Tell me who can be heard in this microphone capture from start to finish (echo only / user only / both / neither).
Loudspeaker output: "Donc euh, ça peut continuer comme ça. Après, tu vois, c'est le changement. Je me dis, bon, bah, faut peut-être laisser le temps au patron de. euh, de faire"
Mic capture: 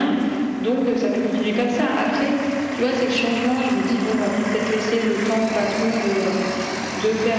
echo only